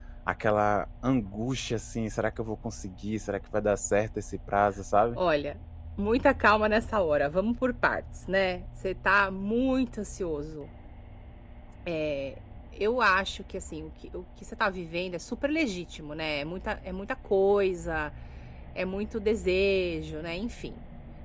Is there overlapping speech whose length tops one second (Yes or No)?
No